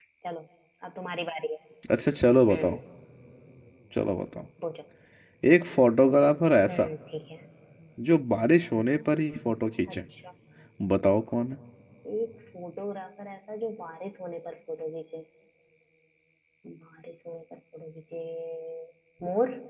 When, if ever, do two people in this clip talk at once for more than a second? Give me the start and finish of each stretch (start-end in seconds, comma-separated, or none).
none